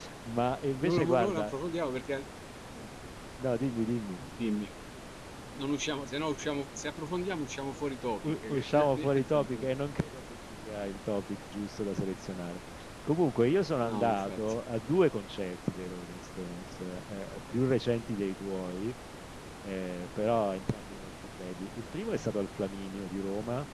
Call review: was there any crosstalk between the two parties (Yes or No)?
Yes